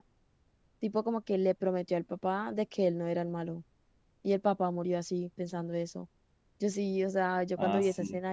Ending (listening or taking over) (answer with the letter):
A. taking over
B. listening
B